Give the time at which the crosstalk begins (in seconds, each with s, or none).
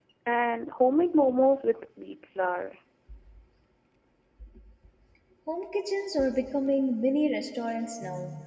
none